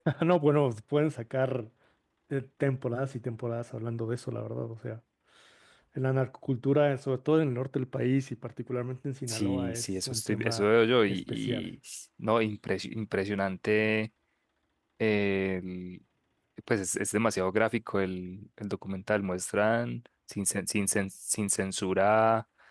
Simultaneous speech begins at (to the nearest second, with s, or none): 9 s